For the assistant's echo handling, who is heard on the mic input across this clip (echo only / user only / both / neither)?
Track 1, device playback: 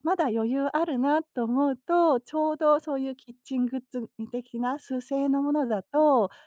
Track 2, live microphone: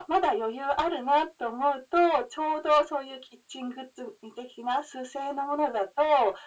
echo only